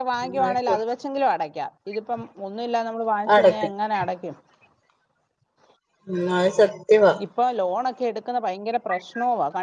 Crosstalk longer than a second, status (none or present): none